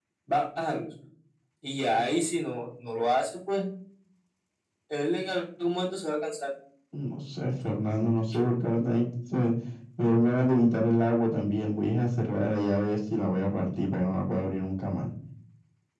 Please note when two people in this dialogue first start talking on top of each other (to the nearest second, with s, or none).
none